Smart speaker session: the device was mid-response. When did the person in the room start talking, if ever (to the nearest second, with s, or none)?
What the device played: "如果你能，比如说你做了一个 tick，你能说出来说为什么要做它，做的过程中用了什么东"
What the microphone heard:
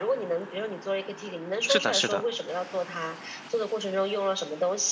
2 s